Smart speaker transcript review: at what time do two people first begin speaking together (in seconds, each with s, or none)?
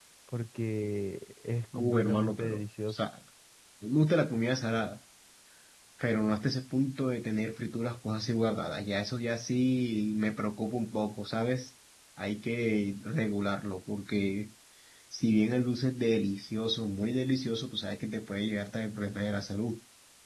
1.7 s